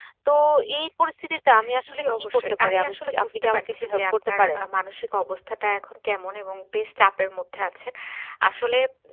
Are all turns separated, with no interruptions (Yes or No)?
No